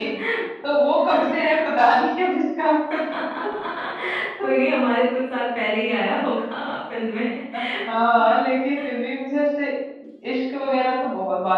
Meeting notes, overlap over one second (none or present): none